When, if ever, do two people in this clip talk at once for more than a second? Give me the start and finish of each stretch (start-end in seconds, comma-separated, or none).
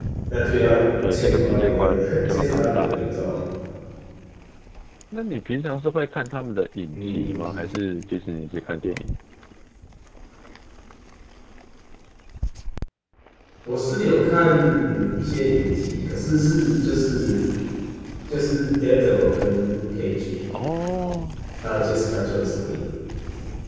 1.1-3.0